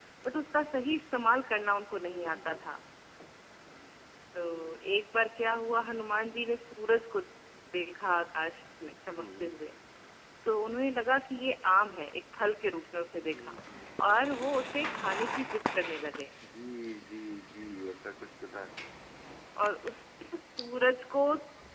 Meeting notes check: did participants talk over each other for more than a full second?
No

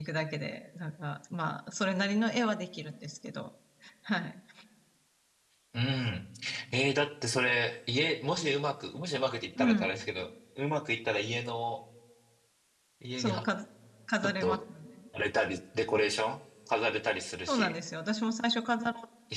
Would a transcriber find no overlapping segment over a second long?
Yes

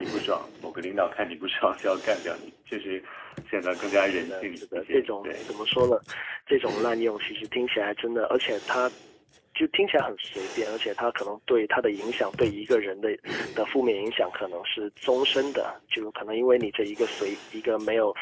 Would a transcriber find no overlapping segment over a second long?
No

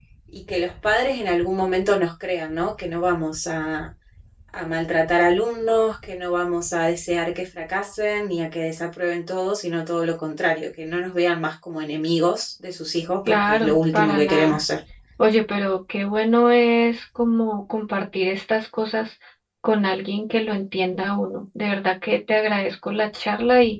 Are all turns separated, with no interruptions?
No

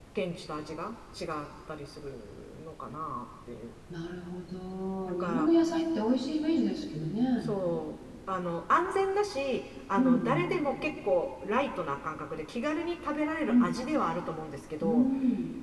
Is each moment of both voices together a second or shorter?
Yes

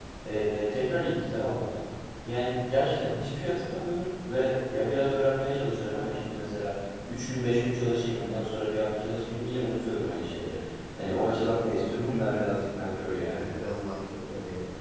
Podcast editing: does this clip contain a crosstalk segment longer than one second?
No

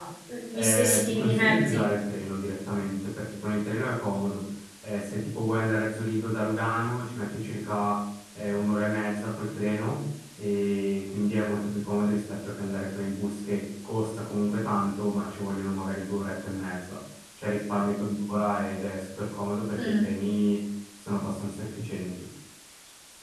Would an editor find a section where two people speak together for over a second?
Yes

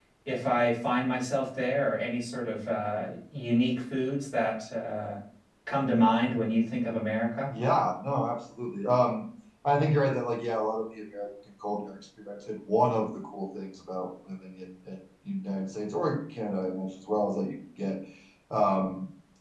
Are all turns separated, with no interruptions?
Yes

